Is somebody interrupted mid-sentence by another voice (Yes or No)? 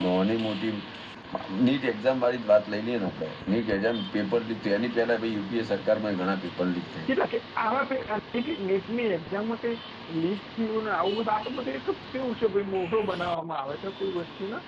No